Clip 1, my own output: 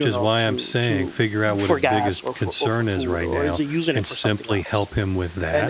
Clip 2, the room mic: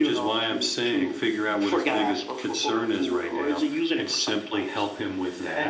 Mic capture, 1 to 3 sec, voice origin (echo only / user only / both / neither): echo only